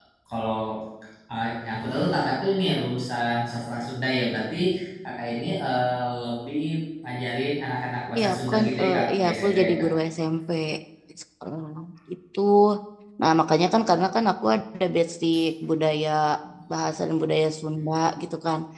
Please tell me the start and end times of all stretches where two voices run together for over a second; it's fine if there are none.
8.2-9.9

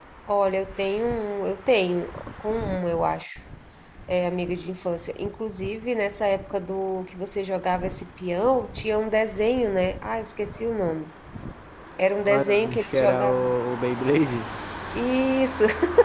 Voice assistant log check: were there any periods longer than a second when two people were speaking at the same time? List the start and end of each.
12.2-13.5

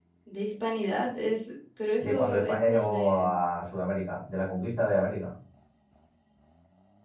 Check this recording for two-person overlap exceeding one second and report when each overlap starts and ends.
2.0-3.3

